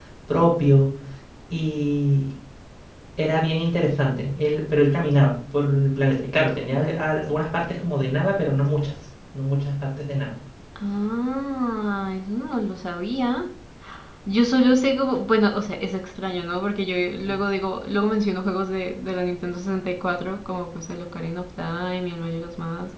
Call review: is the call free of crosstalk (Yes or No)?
Yes